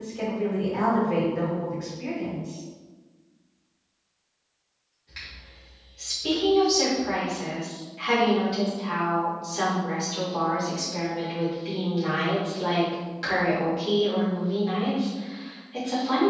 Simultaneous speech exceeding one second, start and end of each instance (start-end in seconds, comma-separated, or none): none